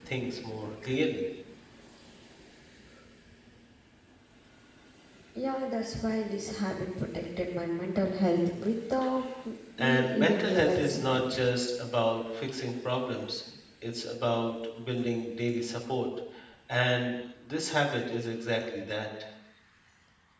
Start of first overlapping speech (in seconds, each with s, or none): 9.8 s